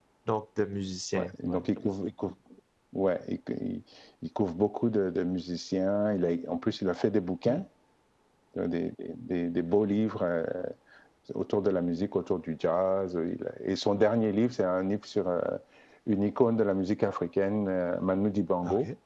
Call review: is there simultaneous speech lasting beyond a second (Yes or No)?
No